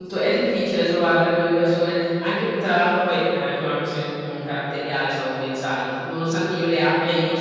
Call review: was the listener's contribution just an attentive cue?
Yes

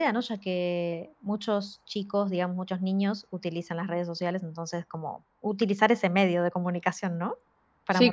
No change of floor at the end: No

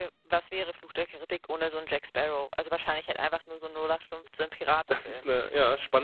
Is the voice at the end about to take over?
Yes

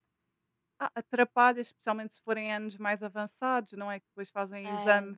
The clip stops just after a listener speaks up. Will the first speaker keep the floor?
Yes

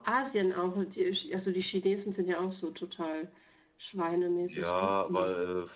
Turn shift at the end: Yes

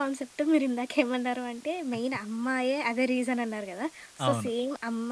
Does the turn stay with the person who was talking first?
Yes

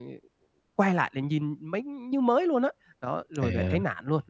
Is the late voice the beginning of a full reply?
No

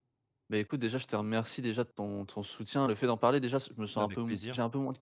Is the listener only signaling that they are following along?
Yes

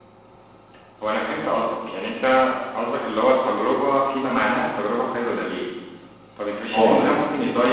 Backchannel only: Yes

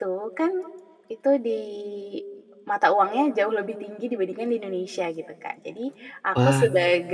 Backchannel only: Yes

